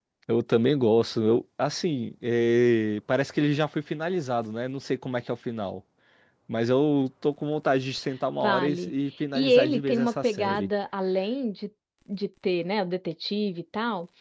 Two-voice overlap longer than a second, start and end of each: 9.3-10.7

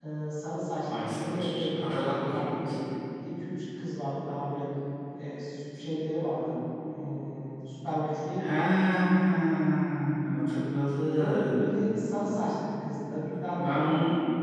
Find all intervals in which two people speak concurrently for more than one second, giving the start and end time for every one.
0.8-2.7

